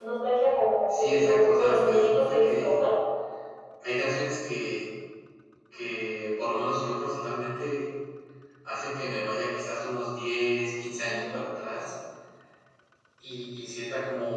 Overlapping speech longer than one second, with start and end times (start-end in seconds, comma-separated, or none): 0.9-2.7